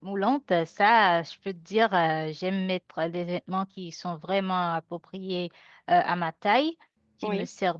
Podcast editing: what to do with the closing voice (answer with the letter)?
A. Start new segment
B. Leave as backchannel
B